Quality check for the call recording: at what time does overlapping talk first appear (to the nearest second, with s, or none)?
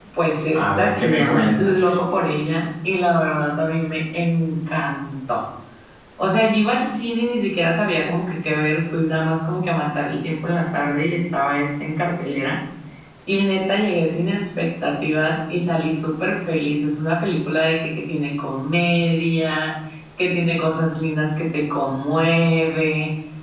1 s